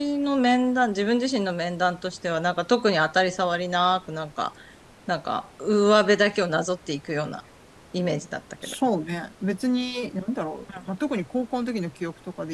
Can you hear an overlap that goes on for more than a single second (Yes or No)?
No